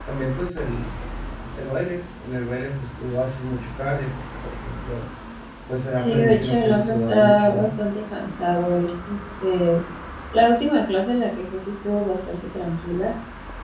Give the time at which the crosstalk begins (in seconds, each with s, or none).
5.9 s